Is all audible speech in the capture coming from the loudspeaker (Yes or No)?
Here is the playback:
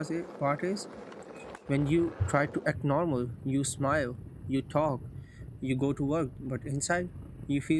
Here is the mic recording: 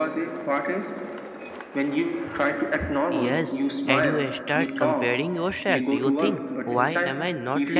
No